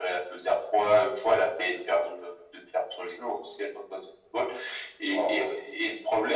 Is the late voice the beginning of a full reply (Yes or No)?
No